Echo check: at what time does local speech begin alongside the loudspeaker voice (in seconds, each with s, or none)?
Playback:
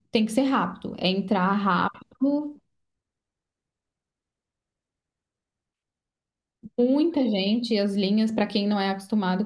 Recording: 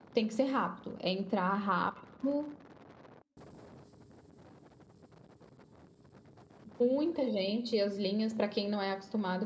none